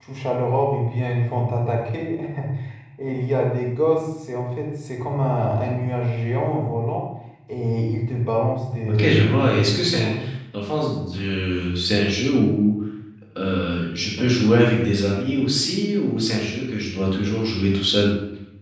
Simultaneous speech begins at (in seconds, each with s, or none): 8.9 s